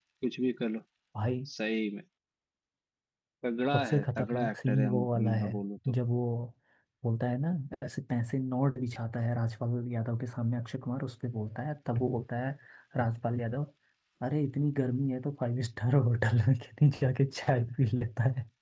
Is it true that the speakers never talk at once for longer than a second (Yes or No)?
No